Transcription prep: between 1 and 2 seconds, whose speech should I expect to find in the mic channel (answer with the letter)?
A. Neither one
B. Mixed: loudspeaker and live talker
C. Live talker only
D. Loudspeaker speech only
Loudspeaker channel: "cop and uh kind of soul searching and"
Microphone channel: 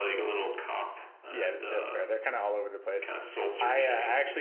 B